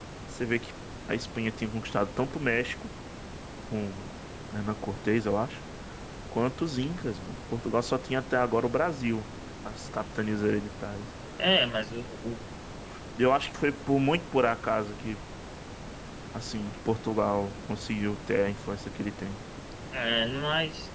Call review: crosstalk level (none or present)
none